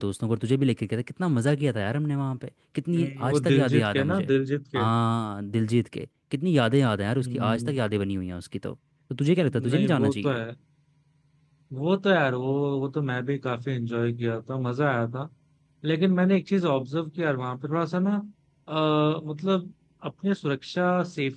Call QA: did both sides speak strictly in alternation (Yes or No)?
No